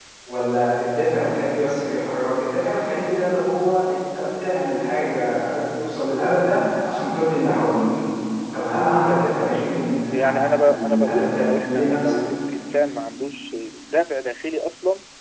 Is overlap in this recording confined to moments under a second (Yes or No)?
No